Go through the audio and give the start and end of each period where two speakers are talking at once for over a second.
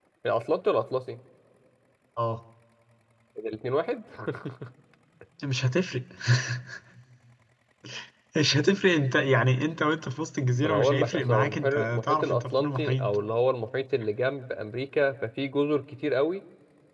10.6-13.0

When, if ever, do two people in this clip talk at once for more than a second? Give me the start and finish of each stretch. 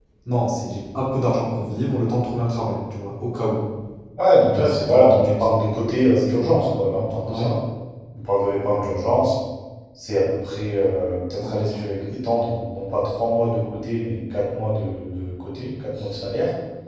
4.5-7.5

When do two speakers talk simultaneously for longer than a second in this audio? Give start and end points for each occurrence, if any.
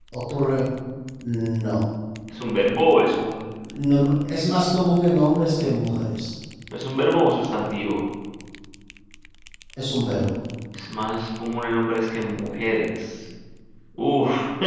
none

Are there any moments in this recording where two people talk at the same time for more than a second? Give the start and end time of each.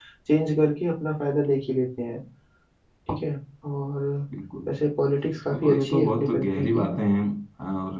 5.5-6.9

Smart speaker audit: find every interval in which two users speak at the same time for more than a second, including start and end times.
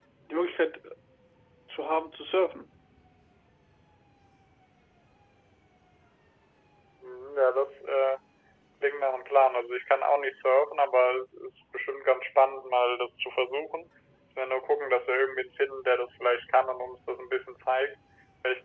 none

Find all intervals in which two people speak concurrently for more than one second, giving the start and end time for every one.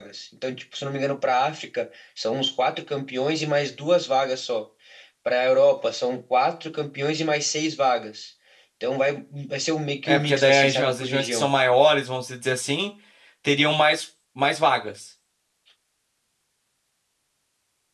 10.1-11.4

